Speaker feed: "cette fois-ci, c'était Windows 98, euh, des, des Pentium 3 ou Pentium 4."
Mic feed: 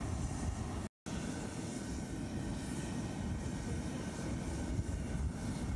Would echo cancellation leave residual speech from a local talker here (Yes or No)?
No